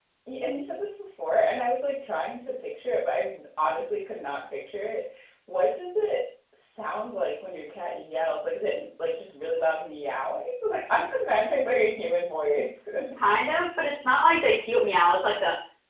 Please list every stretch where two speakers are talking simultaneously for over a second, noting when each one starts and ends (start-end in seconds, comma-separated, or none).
none